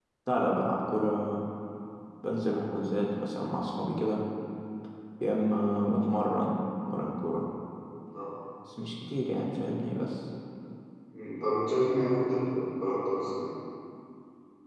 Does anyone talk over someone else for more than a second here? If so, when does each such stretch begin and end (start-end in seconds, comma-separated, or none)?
none